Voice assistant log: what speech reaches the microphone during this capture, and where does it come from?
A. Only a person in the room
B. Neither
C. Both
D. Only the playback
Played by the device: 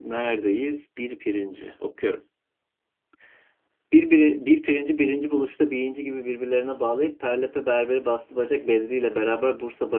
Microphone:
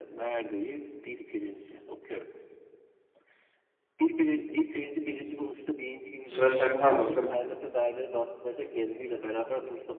C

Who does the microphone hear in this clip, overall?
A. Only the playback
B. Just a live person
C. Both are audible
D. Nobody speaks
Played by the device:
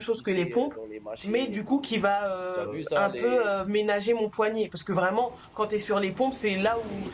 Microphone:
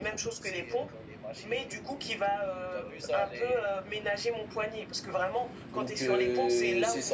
C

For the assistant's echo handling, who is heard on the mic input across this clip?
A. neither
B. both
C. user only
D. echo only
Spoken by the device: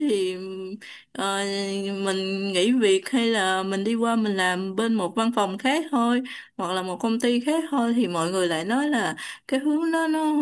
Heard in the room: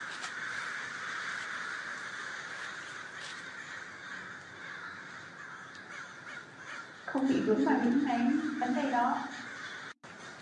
C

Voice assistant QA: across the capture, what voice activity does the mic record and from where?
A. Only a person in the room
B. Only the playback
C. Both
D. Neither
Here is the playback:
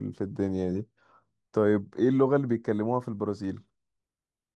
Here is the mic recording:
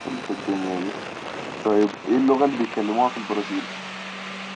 B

